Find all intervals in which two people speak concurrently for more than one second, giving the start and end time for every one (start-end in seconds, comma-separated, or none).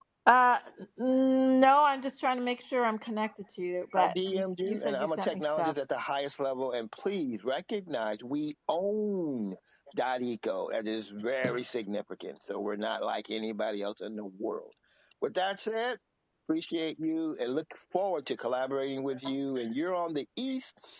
4.0-5.7